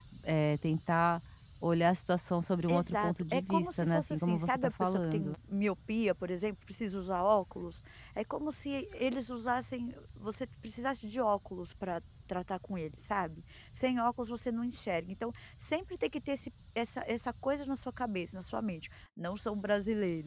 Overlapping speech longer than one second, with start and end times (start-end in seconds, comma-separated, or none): 2.7-5.3